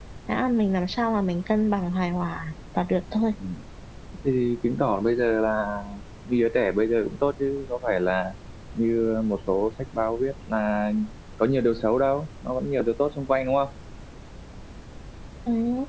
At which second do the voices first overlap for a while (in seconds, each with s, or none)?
none